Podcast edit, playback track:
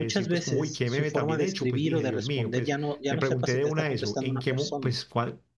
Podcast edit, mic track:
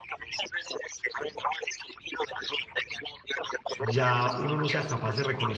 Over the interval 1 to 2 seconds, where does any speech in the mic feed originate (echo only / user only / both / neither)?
echo only